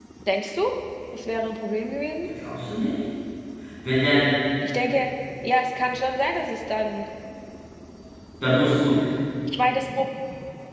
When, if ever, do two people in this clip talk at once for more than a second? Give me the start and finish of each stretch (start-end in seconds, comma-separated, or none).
none